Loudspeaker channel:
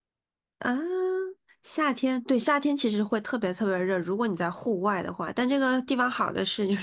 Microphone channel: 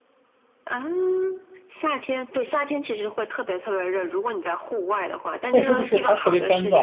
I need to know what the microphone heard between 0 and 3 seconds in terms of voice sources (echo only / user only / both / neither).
echo only